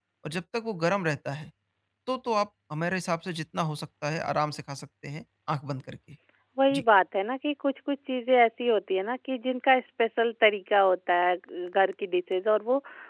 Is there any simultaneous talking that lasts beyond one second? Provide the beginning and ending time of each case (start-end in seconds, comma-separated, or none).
none